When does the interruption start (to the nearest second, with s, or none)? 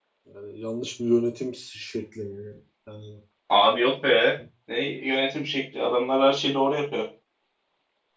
none